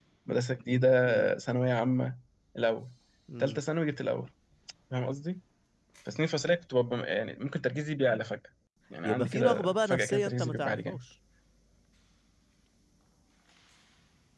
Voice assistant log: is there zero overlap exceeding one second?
No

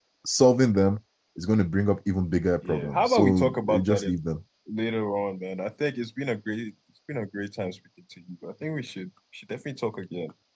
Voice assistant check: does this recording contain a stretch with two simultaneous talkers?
Yes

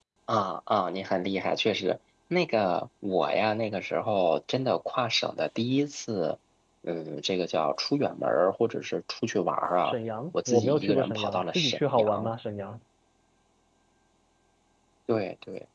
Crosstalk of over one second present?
Yes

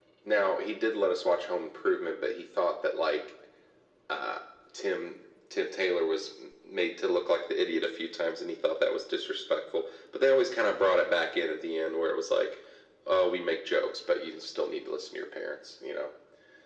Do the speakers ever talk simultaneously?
No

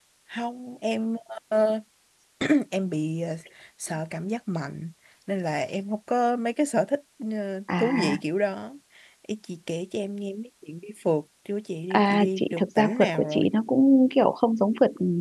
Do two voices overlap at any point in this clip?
Yes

